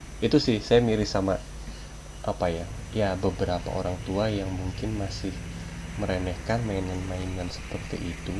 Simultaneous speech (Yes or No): No